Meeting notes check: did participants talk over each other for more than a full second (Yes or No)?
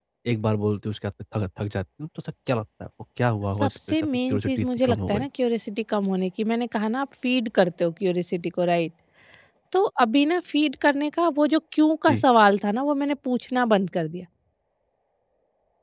Yes